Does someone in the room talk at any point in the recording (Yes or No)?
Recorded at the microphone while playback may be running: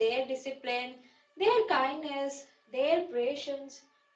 No